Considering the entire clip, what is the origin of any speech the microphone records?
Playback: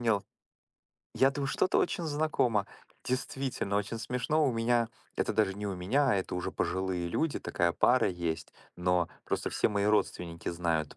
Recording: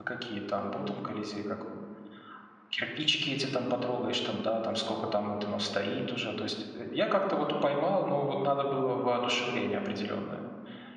user only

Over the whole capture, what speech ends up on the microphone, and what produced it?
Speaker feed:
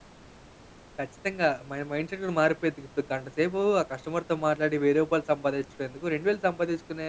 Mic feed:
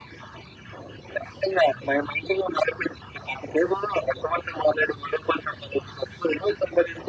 echo only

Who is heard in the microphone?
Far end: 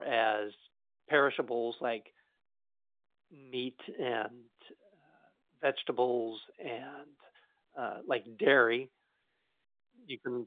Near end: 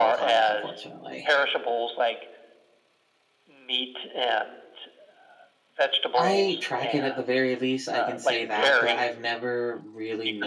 both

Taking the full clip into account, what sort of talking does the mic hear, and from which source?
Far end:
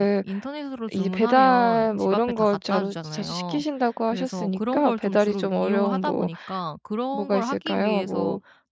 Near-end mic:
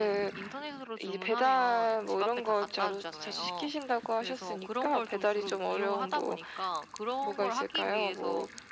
echo only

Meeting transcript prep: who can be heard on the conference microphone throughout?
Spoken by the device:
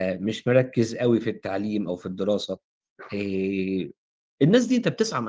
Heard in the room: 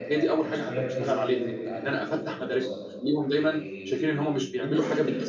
both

